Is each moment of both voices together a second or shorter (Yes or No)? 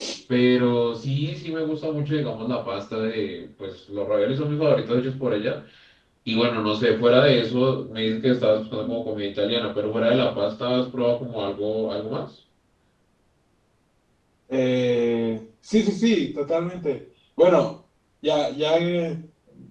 Yes